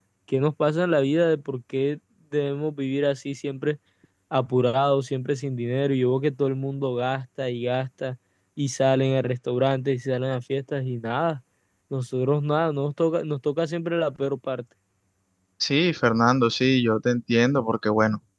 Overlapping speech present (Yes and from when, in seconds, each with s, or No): No